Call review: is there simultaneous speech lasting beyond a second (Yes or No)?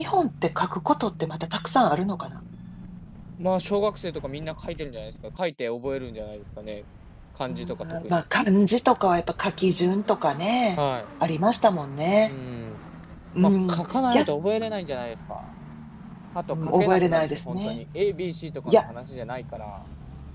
Yes